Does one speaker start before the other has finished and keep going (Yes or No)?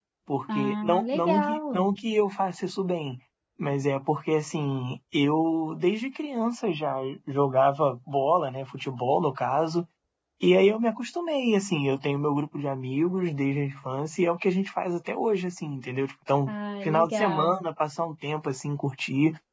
Yes